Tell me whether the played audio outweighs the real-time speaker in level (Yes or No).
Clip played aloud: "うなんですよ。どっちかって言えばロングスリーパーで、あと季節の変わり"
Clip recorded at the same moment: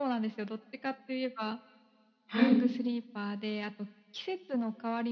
No